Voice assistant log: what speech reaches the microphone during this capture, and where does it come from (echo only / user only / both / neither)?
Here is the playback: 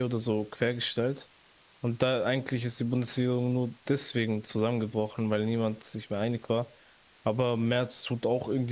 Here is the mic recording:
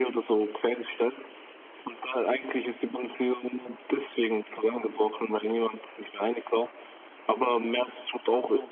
echo only